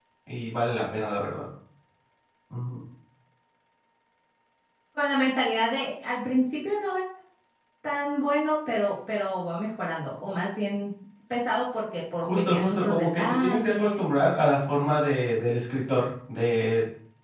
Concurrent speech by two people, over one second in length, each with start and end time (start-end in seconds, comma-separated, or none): 12.2-14.1